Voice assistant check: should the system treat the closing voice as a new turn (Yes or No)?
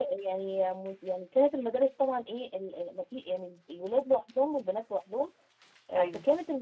No